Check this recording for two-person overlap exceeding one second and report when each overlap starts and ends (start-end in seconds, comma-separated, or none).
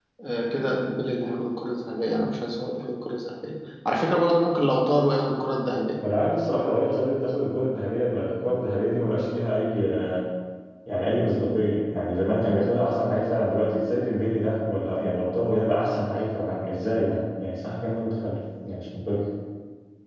none